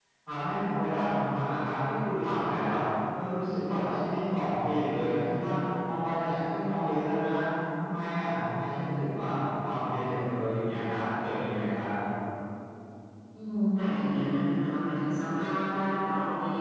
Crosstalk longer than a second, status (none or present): none